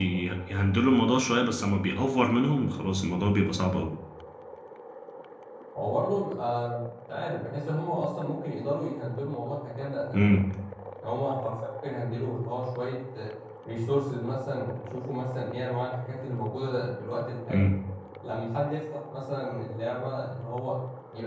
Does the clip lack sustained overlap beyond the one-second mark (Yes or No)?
Yes